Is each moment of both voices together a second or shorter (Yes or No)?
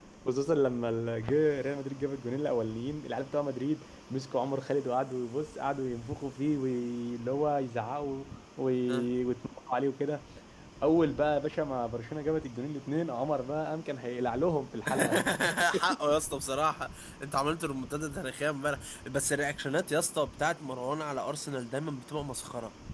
Yes